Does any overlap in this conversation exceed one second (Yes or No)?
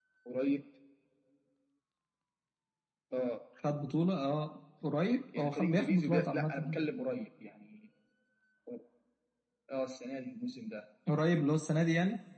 Yes